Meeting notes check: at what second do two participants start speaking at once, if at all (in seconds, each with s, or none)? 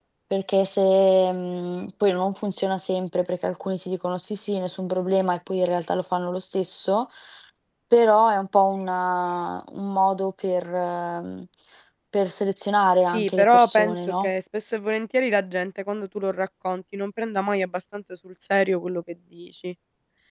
13.1 s